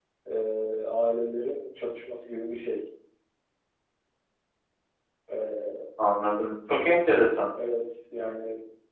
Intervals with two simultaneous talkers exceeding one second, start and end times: none

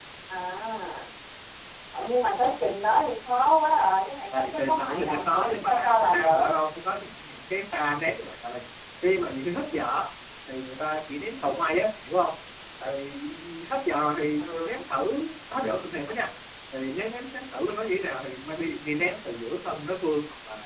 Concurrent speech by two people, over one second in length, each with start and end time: 4.3-6.5

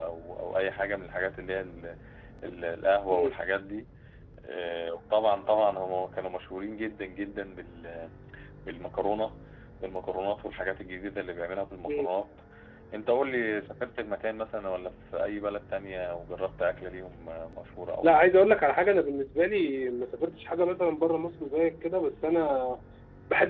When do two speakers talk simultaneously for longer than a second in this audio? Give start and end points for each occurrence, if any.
none

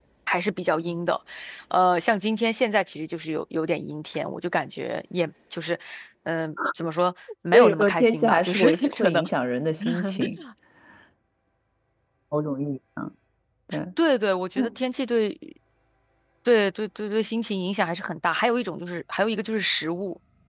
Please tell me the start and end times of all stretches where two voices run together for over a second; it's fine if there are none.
7.5-9.2

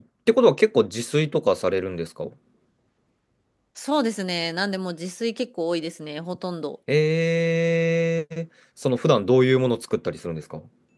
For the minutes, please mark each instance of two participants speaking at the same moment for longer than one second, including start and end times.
none

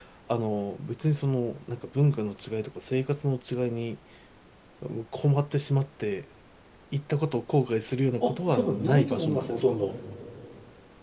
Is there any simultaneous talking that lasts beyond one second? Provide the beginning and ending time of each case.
8.2-9.8

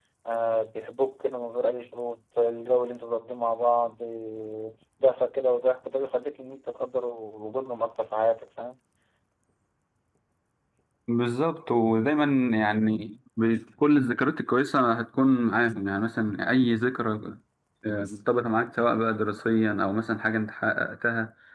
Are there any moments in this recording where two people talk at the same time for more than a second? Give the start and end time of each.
none

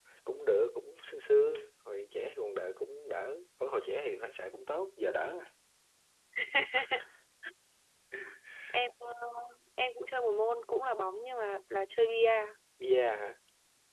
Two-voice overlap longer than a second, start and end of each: none

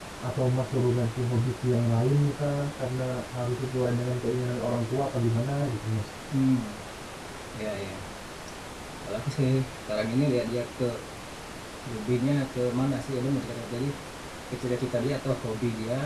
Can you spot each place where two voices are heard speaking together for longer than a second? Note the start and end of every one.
none

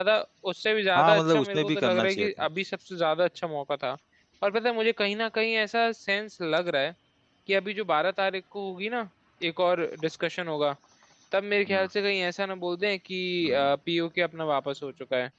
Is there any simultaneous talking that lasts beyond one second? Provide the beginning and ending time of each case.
1.0-2.3

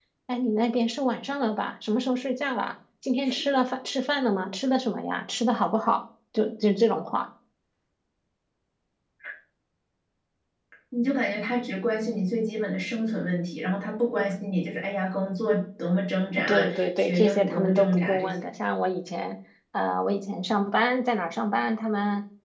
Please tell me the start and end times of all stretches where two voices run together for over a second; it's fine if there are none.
16.4-18.5

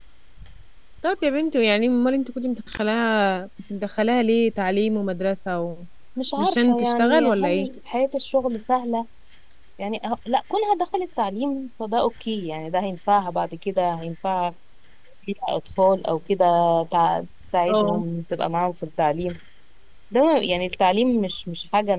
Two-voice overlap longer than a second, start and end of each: 6.4-7.7

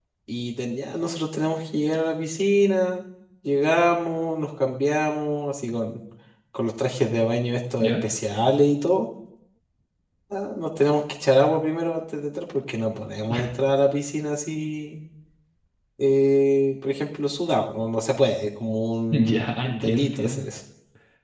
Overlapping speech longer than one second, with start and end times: 19.1-20.5

